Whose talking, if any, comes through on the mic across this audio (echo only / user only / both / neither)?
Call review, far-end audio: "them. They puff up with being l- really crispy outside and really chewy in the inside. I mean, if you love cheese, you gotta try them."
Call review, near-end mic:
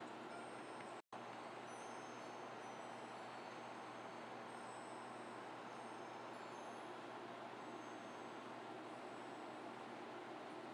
neither